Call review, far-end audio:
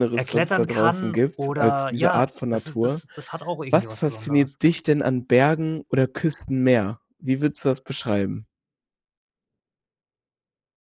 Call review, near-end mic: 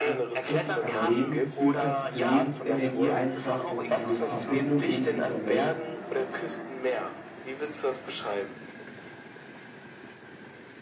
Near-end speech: present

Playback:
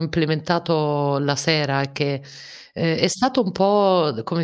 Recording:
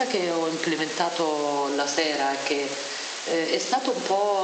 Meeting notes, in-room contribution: none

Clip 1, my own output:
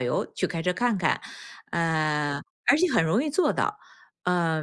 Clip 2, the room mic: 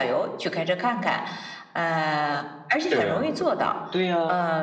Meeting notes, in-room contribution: present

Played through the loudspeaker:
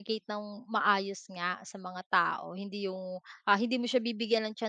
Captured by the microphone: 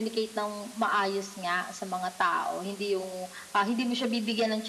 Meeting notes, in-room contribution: none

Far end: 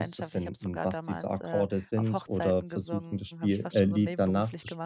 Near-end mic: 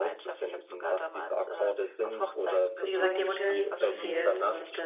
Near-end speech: present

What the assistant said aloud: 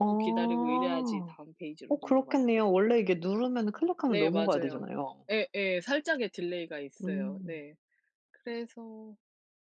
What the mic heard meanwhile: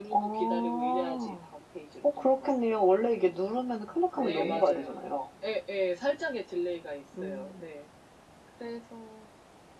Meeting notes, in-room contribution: present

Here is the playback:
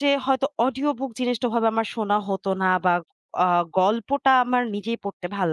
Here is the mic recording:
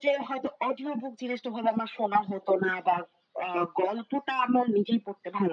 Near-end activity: none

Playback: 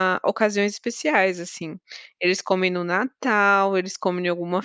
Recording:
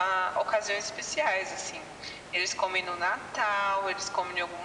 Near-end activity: none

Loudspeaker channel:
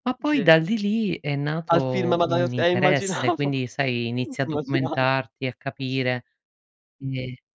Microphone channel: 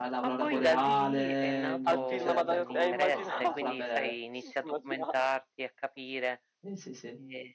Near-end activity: present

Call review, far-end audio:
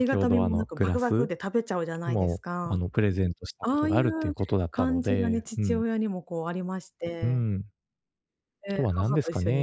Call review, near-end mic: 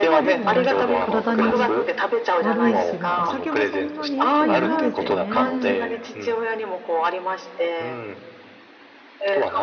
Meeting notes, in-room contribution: present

